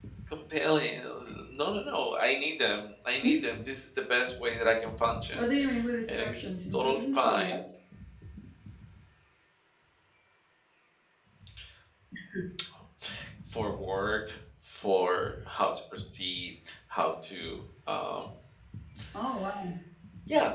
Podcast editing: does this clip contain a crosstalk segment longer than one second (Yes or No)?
Yes